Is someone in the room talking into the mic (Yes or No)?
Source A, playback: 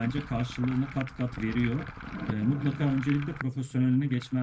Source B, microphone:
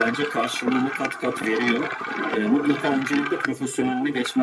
No